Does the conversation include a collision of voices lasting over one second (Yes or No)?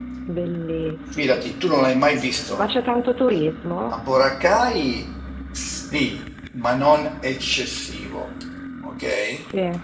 No